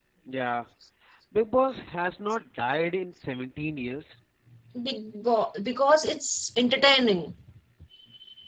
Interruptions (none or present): none